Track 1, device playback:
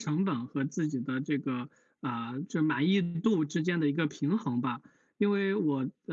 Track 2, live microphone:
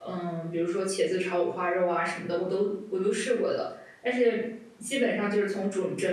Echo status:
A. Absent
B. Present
A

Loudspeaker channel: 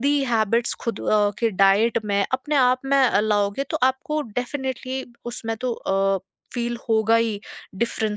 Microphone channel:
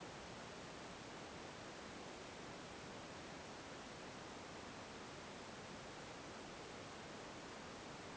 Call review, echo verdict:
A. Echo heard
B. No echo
B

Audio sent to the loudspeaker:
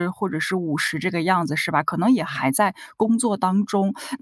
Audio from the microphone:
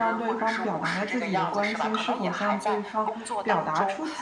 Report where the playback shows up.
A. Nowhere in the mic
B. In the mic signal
B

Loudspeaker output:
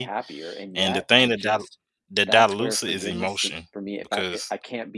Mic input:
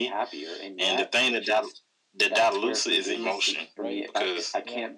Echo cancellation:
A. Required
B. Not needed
A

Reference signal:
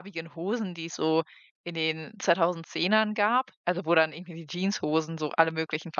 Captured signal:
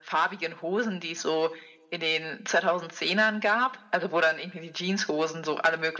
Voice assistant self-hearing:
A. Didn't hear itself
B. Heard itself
B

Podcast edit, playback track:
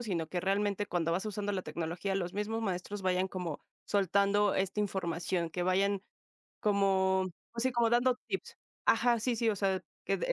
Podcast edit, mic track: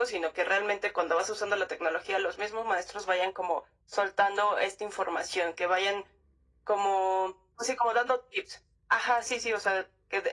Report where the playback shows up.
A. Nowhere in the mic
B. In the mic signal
B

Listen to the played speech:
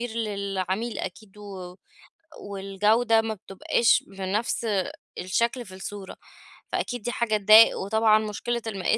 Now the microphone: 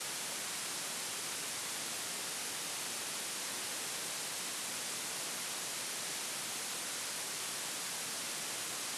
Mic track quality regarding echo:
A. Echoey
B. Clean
B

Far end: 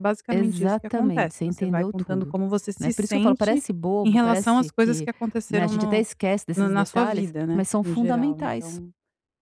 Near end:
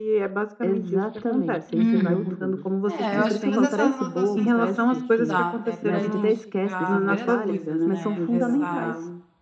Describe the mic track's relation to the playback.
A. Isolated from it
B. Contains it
B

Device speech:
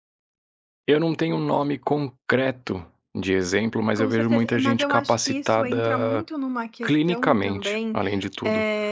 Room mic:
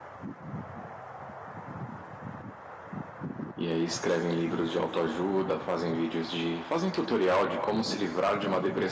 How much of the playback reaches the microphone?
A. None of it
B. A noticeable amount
A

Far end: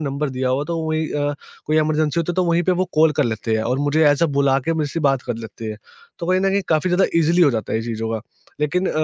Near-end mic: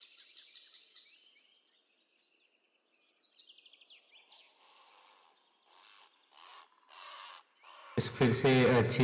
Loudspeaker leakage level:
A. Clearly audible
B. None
B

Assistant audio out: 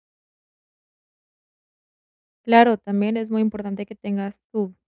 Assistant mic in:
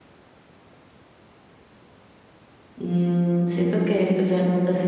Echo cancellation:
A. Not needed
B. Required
A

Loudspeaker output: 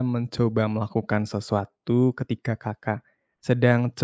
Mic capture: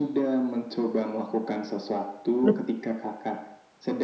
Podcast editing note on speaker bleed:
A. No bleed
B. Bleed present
B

